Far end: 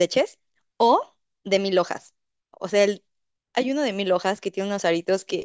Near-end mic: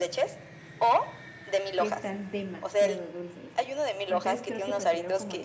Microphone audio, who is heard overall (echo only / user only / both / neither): both